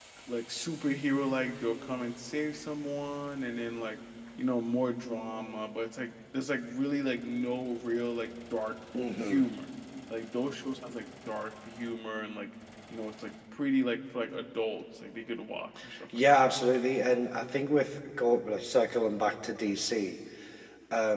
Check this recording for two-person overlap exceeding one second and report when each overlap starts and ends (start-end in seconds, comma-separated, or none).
none